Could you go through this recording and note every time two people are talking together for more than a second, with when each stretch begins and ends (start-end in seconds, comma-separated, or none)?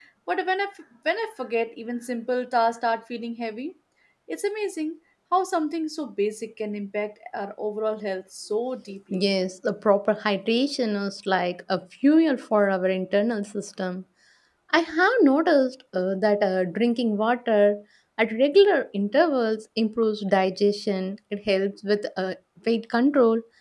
none